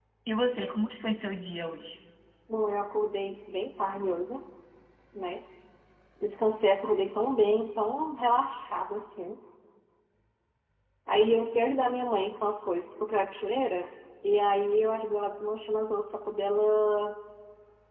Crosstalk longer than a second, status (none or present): none